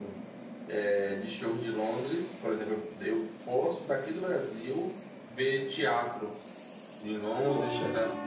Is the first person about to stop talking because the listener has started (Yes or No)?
No